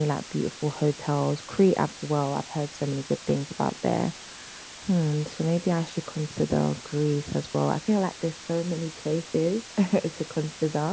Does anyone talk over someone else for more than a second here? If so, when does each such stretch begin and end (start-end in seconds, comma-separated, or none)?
none